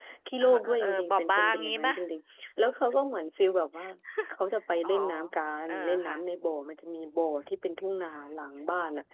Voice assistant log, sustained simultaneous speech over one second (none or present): present